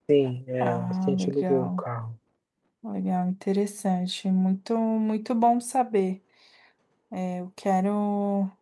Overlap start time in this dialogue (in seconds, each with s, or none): 0.6 s